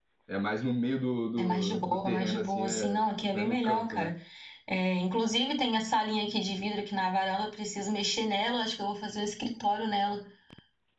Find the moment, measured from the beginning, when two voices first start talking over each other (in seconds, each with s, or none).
1.4 s